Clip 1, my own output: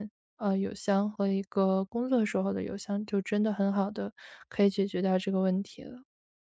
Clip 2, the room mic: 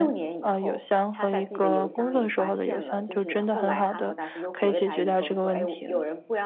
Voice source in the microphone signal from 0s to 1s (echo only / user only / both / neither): both